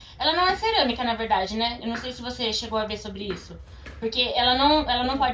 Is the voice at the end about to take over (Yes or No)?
No